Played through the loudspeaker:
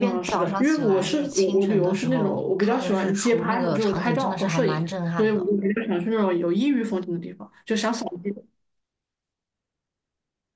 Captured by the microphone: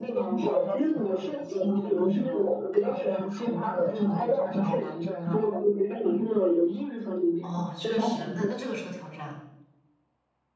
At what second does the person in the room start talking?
7.4 s

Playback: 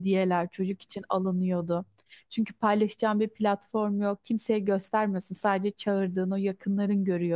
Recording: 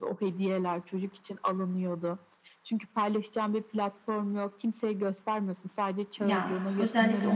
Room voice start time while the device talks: 6.2 s

